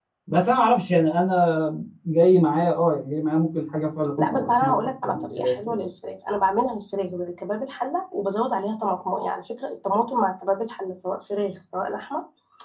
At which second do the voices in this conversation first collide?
4.2 s

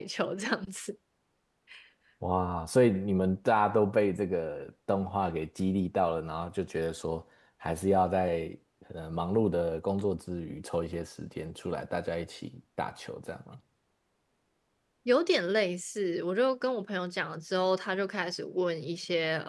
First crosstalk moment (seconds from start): none

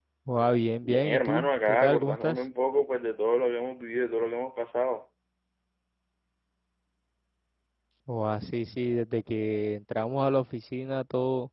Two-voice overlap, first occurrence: 0.8 s

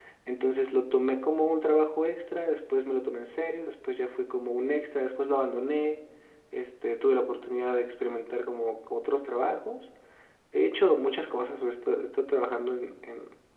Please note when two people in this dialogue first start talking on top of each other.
none

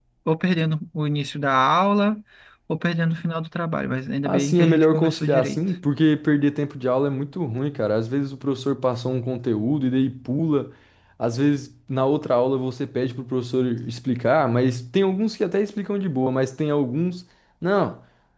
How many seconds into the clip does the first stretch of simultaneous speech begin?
4.2 s

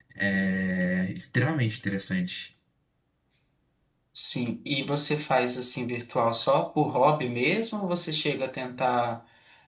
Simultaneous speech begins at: none

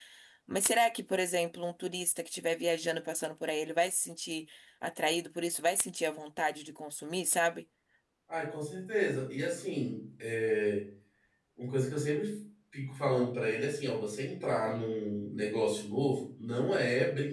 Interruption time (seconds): none

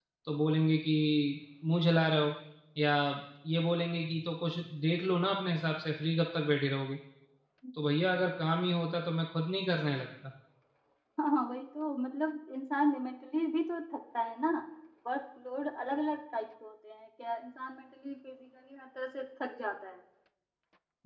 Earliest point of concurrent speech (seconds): none

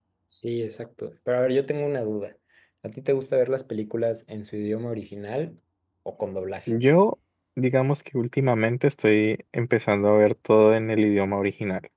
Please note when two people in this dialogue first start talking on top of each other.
none

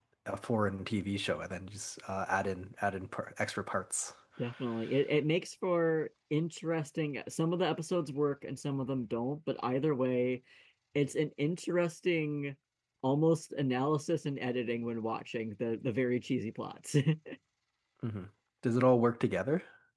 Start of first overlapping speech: none

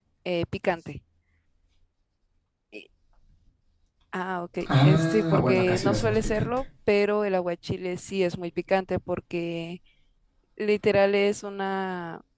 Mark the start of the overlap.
4.8 s

